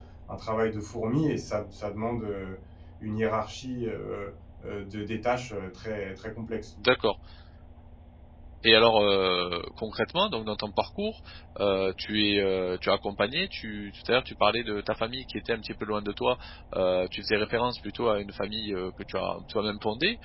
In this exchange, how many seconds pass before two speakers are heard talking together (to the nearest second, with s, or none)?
none